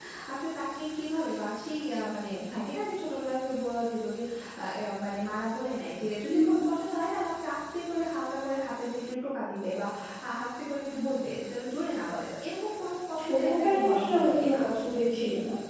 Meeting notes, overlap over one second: present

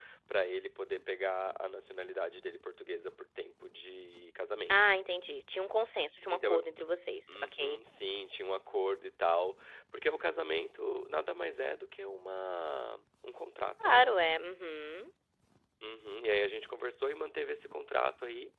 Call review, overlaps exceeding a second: none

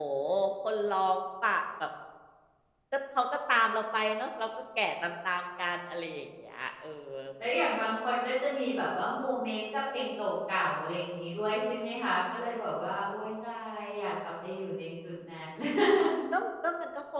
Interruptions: none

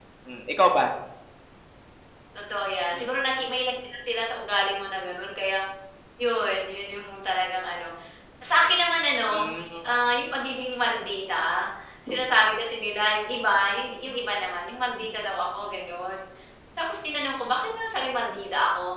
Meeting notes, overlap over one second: none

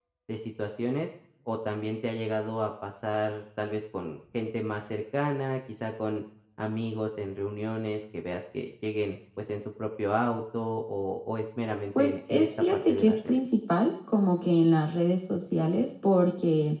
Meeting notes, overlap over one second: present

